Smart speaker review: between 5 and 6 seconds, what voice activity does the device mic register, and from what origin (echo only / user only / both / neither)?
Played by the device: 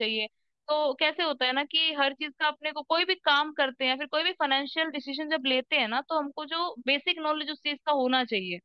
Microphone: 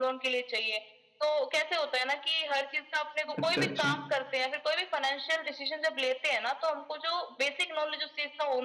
echo only